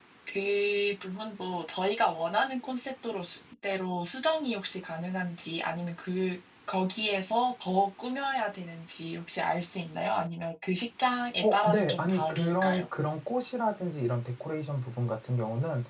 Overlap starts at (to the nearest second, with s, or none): 11 s